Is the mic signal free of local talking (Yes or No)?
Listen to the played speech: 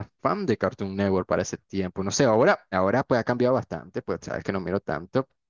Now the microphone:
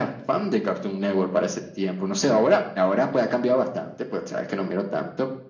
Yes